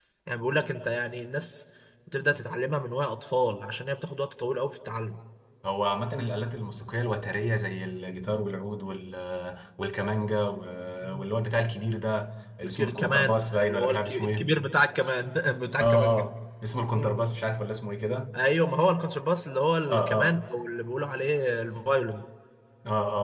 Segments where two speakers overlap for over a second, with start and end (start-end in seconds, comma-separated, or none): 12.6-14.5